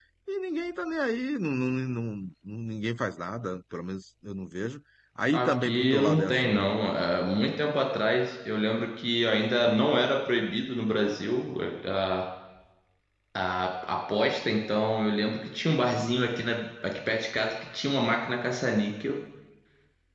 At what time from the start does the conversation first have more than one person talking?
5.3 s

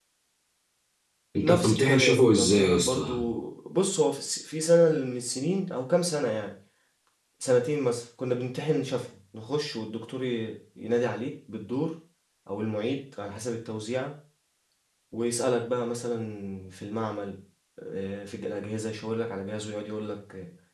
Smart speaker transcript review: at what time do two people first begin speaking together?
1.4 s

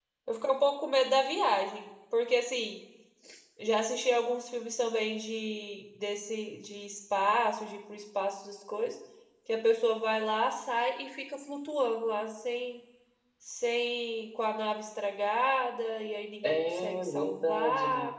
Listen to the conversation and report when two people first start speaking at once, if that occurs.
16.4 s

